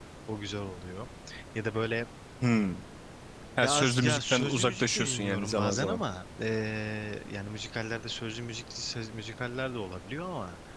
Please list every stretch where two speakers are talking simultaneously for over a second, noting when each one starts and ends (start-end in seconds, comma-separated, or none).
3.6-6.0